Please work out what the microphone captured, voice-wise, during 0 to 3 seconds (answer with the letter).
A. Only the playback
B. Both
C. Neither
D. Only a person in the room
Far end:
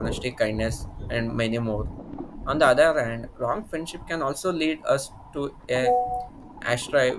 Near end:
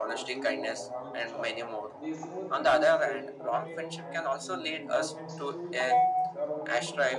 B